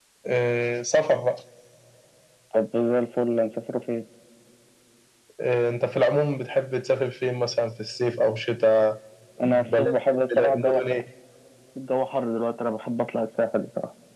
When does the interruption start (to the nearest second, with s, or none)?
9 s